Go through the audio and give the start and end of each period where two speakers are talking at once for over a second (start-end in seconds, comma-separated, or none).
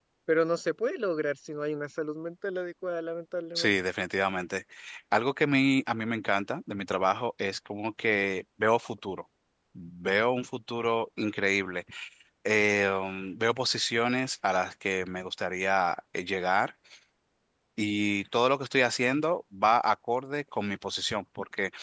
none